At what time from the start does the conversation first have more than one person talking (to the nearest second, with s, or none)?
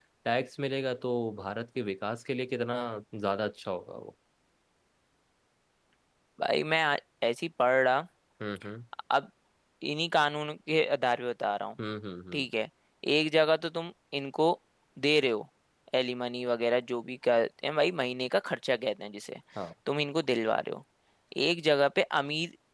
none